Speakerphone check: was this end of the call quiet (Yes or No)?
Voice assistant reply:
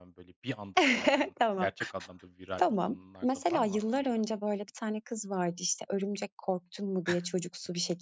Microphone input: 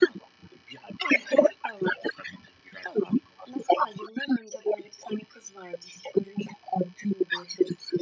Yes